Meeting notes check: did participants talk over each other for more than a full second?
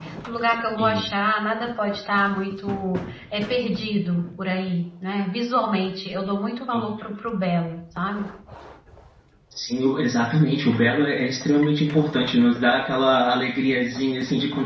No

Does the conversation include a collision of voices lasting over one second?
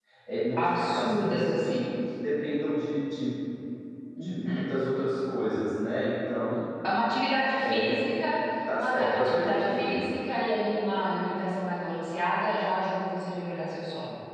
Yes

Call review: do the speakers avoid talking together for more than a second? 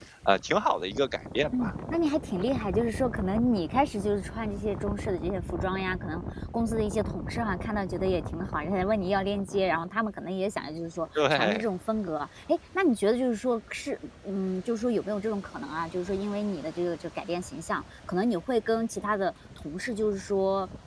Yes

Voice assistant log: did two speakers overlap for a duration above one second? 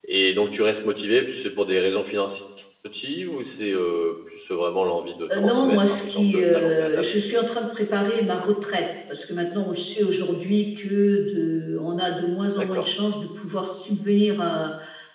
Yes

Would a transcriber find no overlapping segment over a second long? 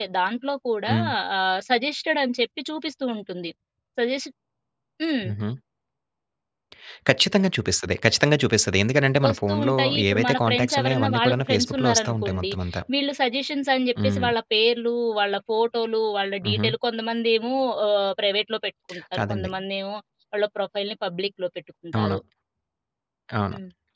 No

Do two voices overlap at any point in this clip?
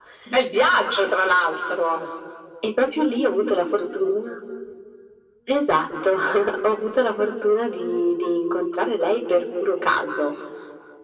No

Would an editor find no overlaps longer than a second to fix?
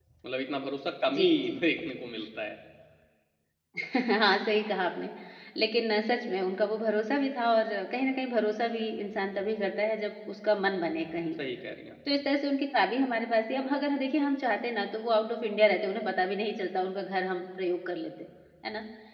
Yes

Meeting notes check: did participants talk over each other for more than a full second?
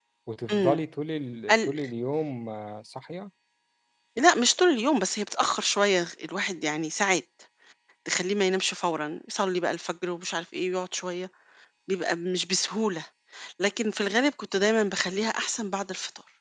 No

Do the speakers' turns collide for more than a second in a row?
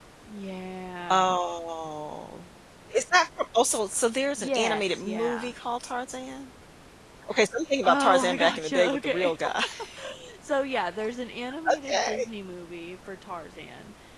Yes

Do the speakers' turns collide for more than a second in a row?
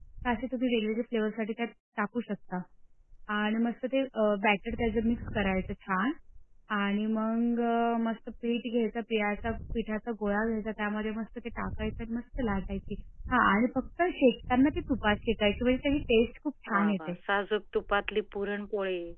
No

